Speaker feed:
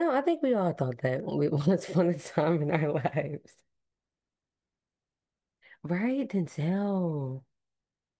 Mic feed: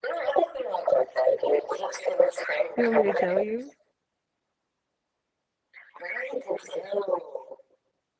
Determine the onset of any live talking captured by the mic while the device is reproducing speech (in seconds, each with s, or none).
2.8 s